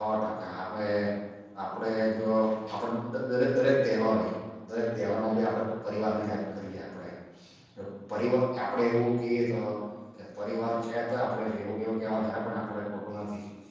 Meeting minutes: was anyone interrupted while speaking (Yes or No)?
No